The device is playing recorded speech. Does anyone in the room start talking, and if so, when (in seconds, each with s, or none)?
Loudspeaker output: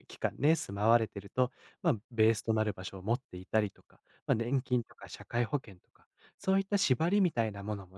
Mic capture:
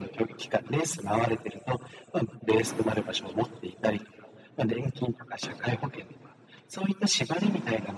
none